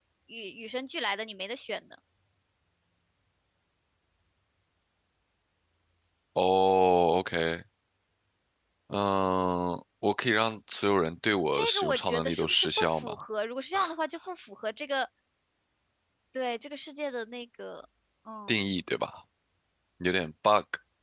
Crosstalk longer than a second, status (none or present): present